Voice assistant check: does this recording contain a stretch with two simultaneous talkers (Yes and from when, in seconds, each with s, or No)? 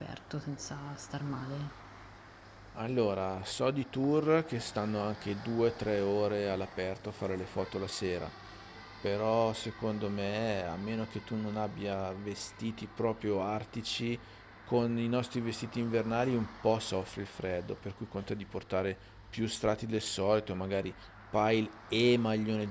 No